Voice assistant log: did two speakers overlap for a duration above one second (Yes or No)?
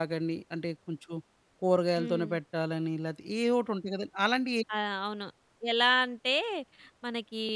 No